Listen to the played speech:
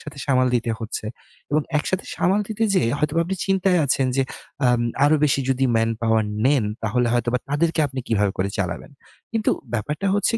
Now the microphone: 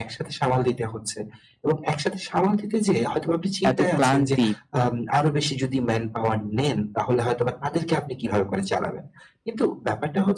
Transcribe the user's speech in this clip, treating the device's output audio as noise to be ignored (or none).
এত ক্লান্তি